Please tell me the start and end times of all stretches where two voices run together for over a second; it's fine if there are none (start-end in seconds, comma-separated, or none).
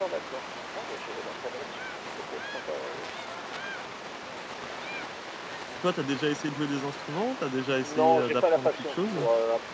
7.8-9.2